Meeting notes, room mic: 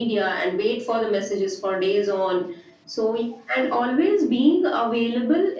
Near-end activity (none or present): none